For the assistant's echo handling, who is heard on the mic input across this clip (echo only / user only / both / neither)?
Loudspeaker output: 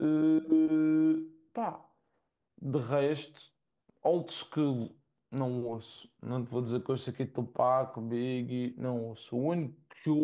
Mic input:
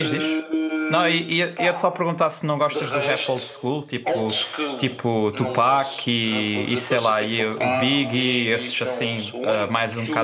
both